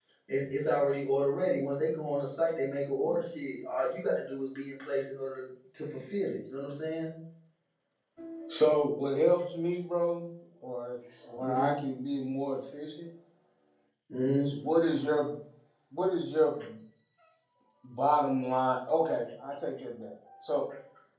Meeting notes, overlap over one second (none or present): none